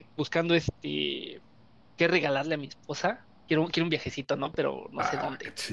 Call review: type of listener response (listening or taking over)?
taking over